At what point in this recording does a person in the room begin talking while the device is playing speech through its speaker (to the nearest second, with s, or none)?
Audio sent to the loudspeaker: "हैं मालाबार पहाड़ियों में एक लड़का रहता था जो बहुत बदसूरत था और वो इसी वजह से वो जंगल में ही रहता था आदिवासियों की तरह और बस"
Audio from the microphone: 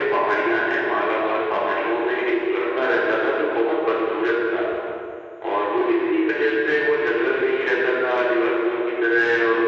none